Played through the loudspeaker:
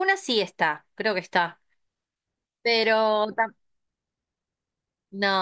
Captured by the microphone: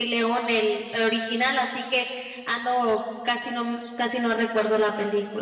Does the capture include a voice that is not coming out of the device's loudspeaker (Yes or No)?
Yes